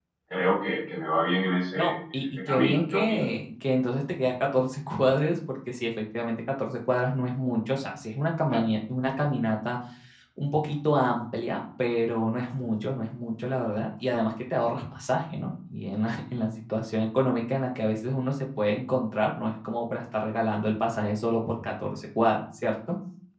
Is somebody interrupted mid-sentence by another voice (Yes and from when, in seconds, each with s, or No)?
Yes, from 1.8 s